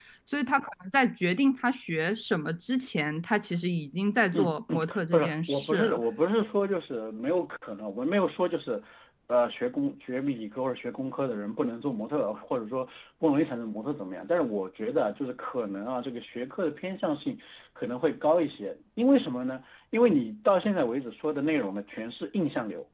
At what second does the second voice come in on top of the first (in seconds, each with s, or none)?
4.3 s